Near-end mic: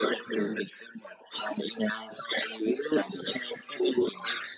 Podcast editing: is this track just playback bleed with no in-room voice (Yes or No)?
Yes